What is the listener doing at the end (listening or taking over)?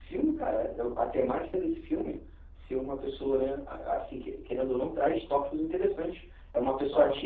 listening